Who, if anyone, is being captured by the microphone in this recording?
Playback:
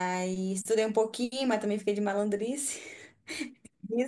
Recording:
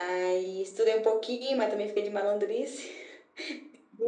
echo only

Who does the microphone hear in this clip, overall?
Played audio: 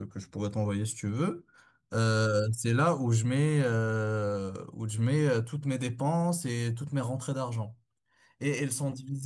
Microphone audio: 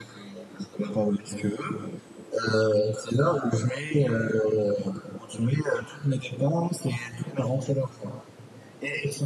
echo only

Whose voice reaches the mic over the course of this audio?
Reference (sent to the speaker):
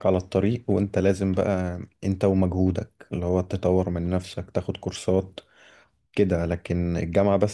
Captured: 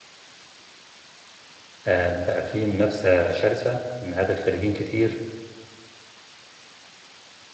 user only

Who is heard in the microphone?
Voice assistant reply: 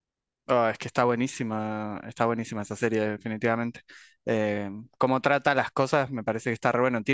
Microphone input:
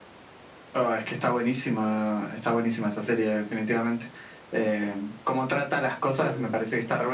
both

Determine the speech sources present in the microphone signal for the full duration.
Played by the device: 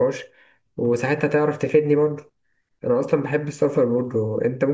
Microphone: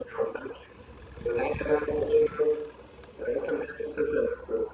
echo only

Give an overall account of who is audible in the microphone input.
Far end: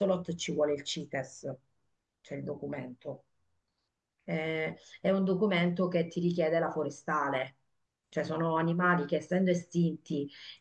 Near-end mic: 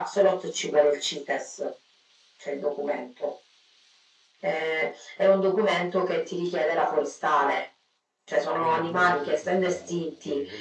both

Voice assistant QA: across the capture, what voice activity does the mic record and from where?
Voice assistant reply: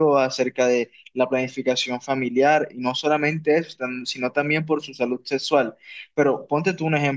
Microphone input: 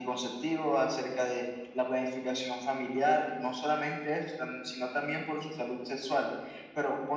echo only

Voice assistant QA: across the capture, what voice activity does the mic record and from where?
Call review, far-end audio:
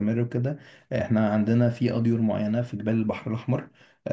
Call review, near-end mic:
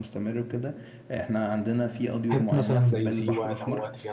both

